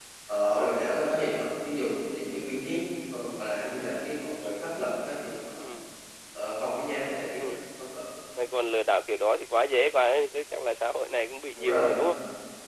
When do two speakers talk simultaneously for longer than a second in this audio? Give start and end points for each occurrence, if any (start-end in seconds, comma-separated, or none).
none